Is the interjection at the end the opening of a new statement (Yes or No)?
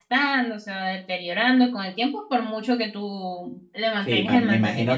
Yes